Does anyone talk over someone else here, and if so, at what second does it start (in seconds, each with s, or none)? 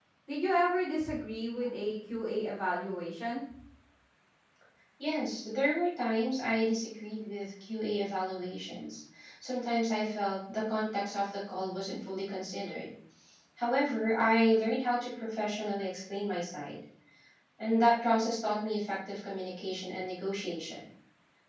none